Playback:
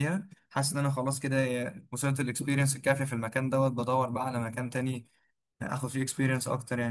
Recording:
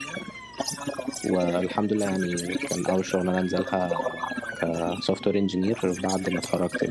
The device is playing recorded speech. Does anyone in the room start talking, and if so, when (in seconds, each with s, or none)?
1.2 s